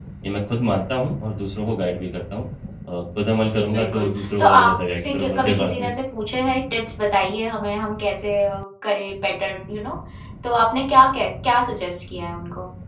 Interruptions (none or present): present